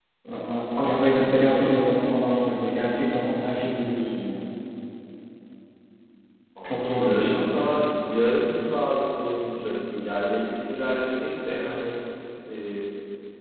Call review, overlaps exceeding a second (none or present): present